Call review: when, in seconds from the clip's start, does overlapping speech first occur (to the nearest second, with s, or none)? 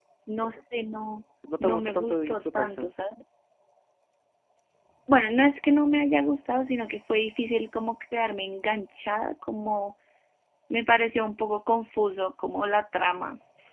1 s